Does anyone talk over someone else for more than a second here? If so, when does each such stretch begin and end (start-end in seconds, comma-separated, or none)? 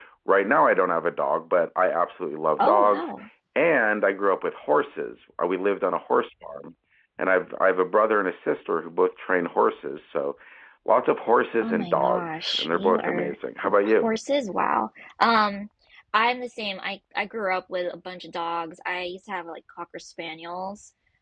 11.6-13.3